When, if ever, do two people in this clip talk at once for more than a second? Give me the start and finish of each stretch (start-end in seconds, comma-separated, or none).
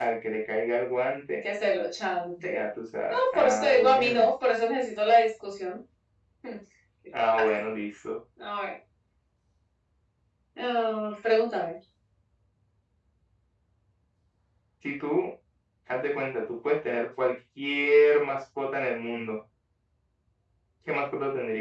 3.1-4.3